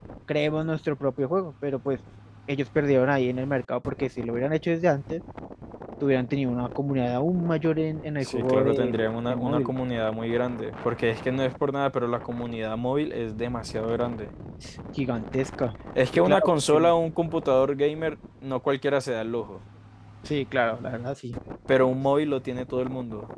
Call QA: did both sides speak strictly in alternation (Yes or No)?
No